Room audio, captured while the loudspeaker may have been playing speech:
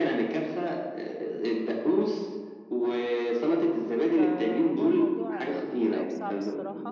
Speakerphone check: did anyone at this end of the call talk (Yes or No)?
Yes